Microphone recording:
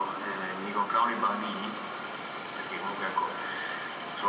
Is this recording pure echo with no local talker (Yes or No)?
Yes